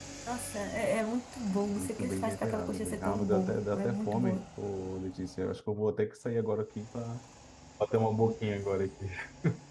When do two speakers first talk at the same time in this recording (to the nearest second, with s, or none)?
2 s